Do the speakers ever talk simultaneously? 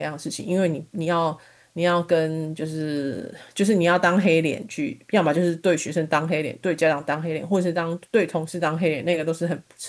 No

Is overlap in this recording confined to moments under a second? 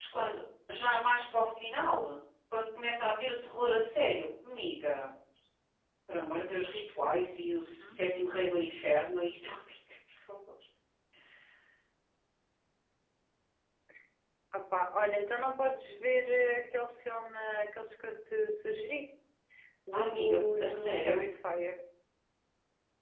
No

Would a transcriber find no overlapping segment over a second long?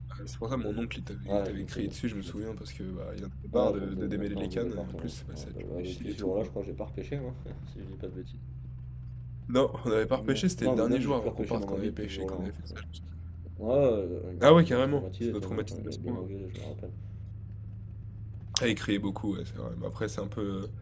No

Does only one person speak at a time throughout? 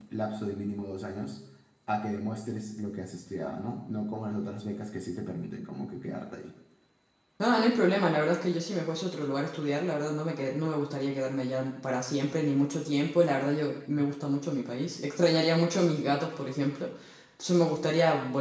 Yes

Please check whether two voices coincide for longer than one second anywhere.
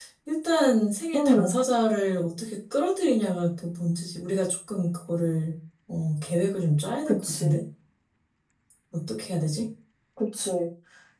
No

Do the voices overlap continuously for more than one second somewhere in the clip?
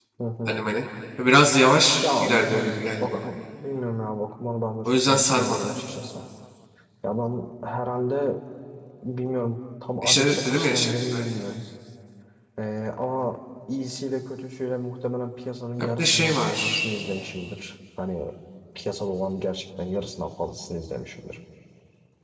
Yes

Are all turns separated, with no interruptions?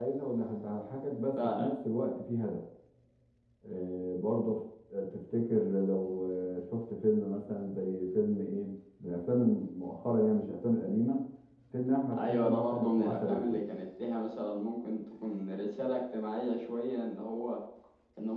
No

